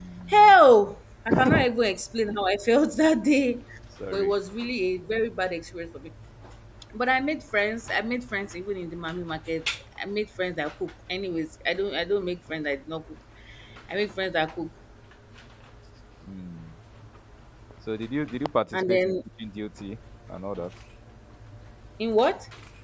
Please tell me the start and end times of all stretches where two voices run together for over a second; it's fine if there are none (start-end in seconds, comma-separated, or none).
none